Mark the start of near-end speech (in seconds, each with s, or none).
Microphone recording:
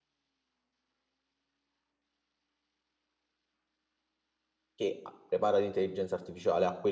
4.8 s